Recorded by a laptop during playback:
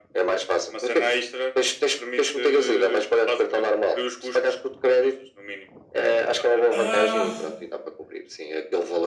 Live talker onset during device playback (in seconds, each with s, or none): 6.7 s